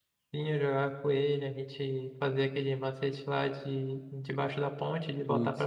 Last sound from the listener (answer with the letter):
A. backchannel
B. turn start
B